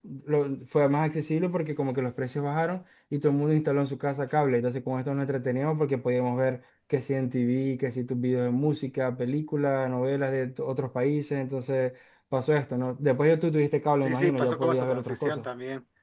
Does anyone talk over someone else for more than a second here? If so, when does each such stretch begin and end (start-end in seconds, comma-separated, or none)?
14.0-15.4